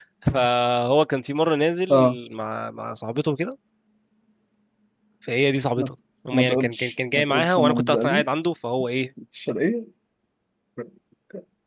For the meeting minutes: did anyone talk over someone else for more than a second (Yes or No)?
Yes